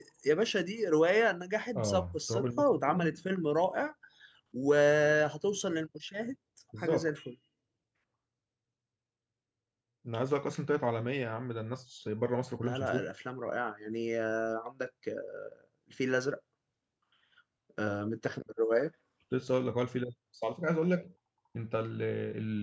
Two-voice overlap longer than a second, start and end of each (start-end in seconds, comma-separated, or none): 1.8-3.1